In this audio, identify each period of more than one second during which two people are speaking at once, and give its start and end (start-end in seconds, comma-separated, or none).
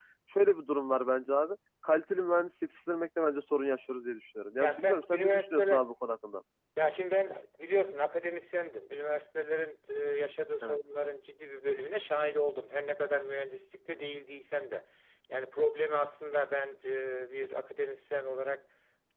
4.6-5.9